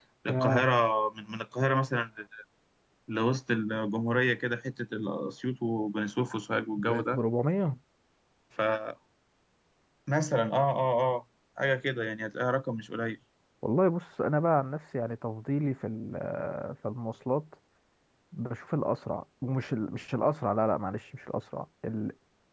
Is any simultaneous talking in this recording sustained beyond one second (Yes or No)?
No